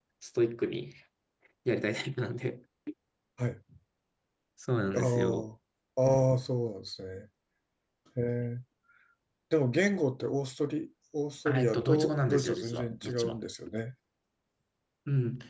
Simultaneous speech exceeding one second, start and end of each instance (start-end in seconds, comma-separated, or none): 11.4-13.4